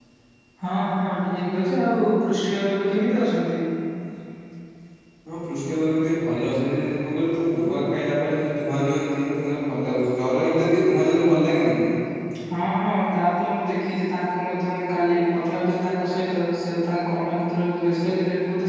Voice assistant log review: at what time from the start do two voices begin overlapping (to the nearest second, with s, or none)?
none